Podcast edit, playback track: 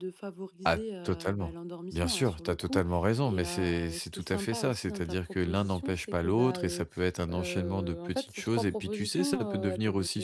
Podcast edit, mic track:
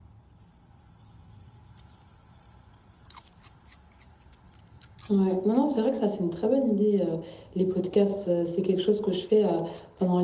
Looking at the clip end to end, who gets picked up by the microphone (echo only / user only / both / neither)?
user only